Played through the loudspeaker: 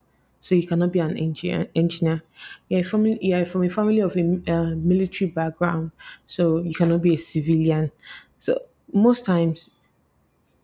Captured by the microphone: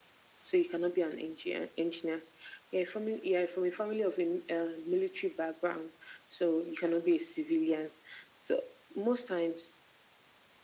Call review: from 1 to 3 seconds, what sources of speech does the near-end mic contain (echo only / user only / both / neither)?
echo only